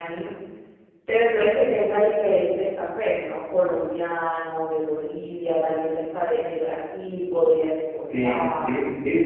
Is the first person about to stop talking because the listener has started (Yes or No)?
Yes